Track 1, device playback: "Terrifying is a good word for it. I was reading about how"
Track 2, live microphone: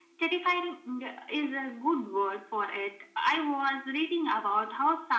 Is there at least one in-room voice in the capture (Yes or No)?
No